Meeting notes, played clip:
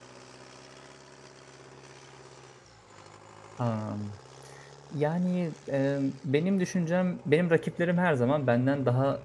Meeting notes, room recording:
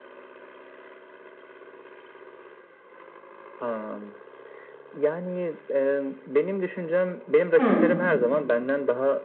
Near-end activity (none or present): present